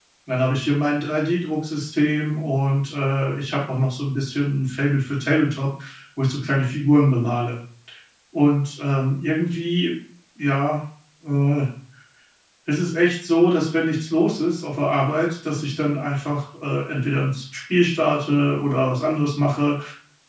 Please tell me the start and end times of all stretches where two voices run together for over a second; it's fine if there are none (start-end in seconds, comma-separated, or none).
none